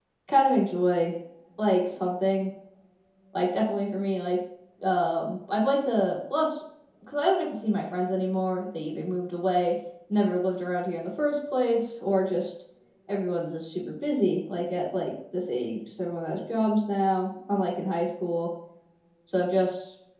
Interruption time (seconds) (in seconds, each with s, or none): none